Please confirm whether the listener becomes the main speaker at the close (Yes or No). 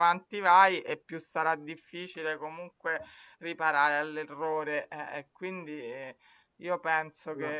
No